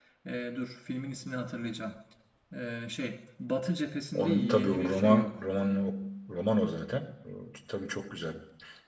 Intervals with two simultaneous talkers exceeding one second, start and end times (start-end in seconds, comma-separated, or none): 4.1-5.4